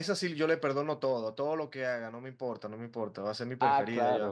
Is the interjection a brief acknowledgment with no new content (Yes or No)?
Yes